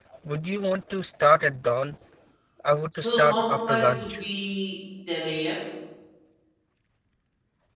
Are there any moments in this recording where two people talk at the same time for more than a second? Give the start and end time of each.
3.0-4.2

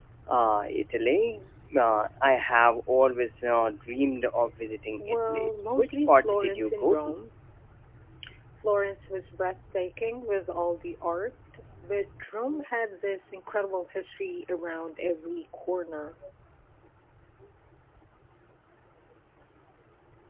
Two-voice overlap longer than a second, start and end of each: 5.3-7.1

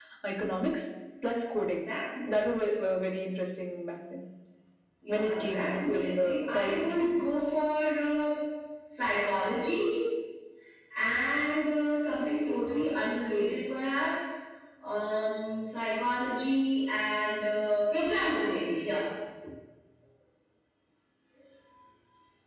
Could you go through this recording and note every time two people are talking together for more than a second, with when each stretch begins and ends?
5.1-7.1

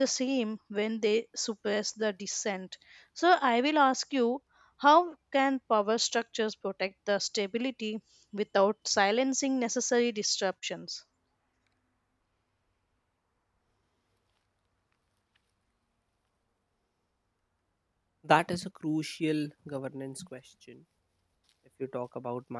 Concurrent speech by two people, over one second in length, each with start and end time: none

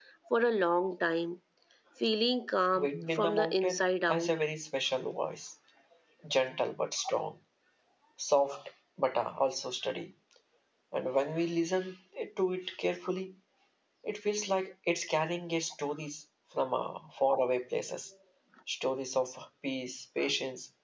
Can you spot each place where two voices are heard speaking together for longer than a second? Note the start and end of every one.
2.8-4.3

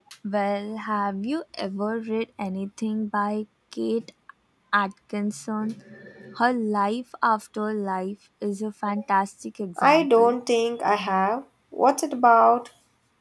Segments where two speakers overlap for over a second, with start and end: none

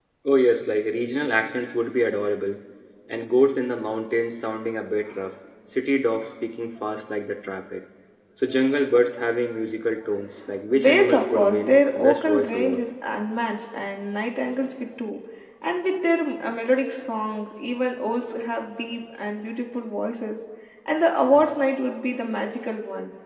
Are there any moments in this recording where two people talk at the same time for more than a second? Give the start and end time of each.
10.7-12.8

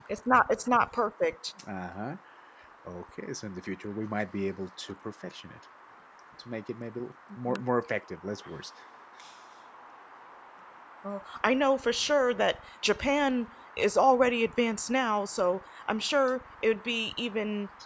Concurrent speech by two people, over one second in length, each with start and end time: none

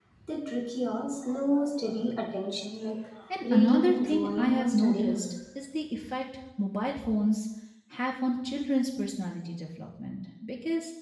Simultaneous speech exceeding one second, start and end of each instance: 3.4-5.3

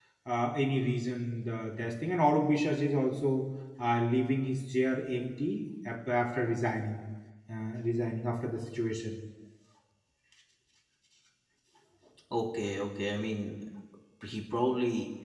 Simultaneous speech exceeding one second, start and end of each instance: none

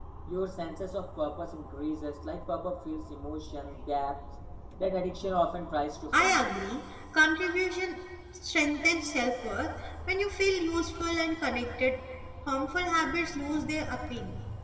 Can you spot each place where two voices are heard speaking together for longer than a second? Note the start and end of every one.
none

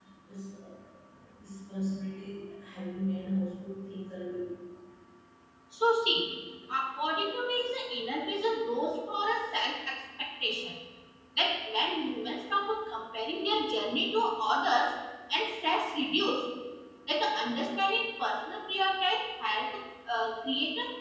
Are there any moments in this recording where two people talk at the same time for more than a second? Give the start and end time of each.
none

